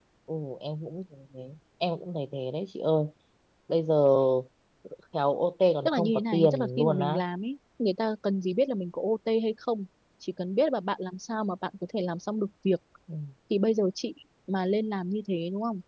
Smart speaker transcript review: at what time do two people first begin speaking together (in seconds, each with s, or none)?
5.8 s